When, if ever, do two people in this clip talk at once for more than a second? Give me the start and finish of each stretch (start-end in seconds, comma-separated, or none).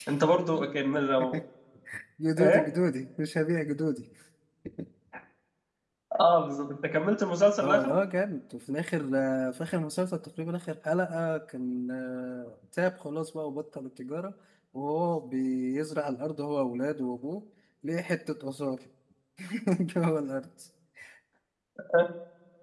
none